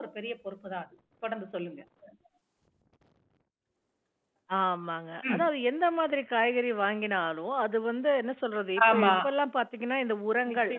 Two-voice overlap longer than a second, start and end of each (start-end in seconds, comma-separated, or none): none